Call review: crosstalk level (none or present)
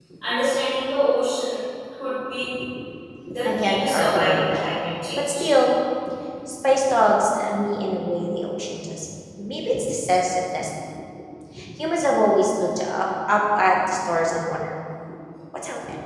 present